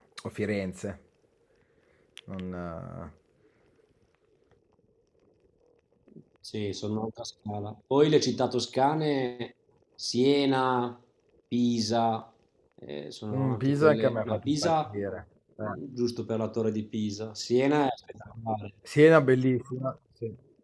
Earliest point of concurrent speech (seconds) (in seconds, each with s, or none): 13.3 s